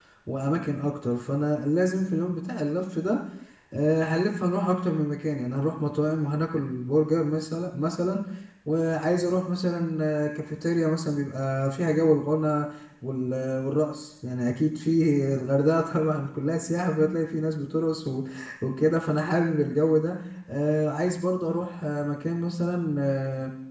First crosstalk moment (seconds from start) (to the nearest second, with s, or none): none